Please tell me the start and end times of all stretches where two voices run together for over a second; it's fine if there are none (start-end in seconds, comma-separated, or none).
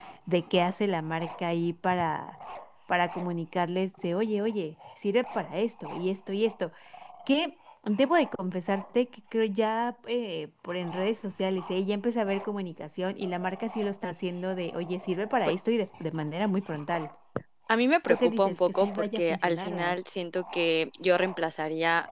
18.1-19.9